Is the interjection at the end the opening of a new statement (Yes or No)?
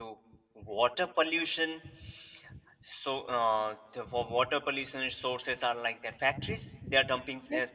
No